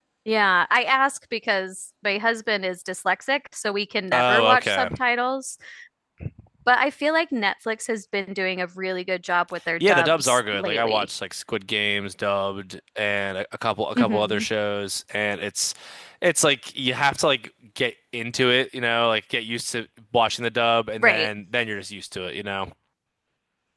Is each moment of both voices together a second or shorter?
No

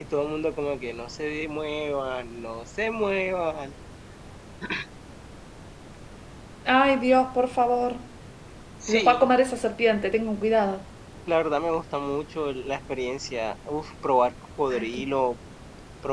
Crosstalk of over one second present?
No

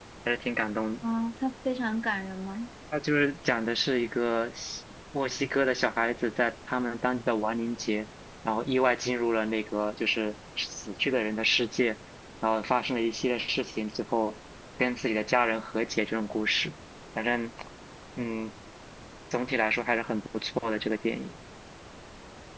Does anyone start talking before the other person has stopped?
No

